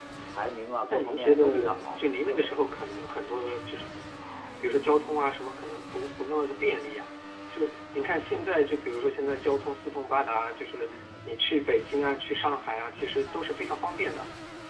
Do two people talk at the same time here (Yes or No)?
Yes